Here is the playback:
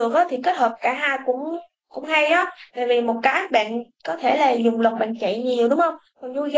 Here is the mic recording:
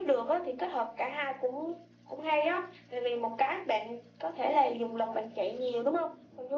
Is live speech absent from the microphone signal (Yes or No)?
Yes